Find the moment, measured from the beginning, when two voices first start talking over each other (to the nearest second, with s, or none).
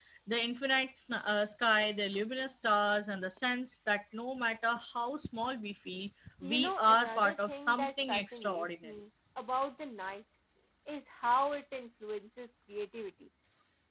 6 s